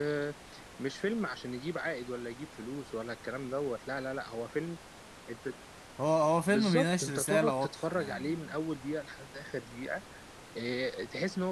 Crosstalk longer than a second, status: present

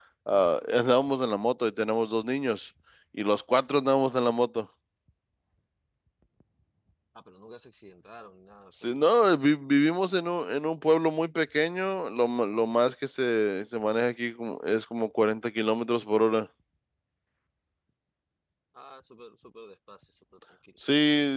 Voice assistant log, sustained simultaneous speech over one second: none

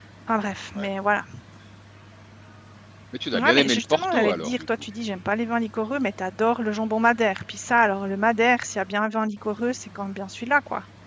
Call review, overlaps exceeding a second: present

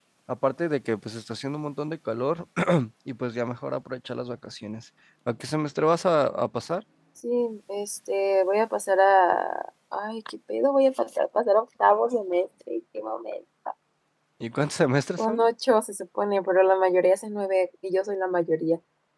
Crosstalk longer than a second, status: none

